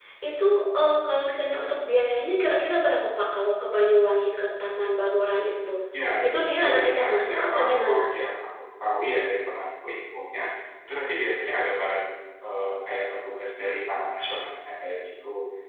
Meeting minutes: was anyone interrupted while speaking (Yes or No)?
Yes